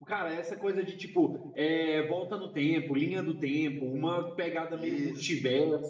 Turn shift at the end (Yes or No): No